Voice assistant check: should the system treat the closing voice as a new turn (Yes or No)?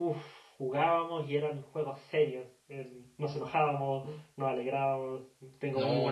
Yes